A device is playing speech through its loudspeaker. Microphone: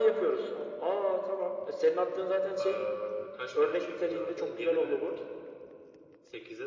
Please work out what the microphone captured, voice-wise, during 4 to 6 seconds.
echo only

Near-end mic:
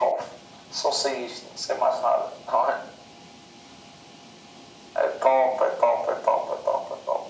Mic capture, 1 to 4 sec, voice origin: echo only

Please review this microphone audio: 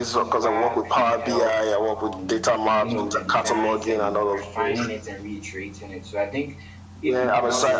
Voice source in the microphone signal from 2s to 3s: both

